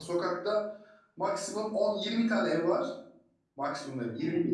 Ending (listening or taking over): listening